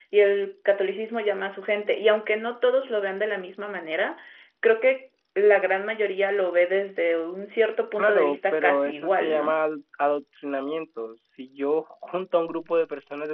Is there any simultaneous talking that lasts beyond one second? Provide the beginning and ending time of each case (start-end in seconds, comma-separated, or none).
8.0-9.5